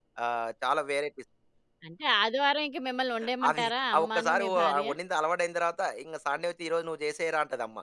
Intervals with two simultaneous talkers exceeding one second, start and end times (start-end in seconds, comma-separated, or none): 3.5-4.9